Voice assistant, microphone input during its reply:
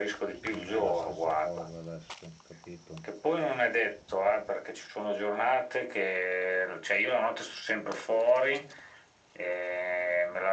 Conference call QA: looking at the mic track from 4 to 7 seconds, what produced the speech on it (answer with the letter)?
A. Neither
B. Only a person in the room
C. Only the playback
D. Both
C